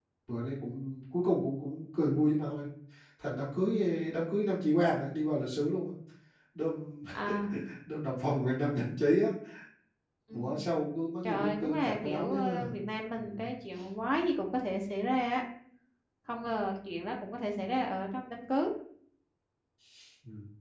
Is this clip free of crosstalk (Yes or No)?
No